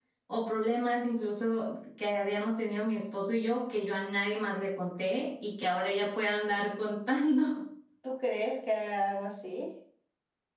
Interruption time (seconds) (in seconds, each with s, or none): none